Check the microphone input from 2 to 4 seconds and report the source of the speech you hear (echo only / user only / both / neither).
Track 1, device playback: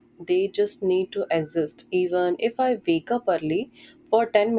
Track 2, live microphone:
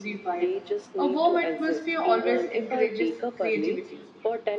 both